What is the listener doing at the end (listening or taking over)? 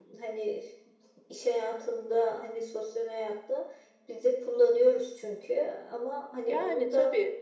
taking over